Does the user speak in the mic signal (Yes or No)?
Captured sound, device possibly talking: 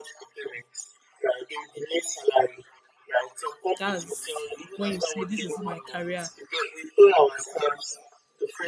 Yes